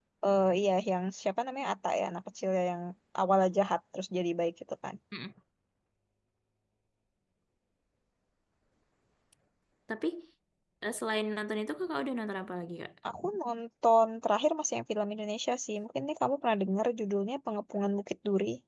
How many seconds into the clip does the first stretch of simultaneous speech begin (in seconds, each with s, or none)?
none